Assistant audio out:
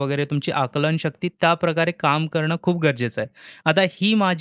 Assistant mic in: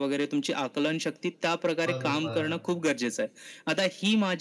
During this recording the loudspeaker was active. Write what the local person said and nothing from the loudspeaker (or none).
बरोबर.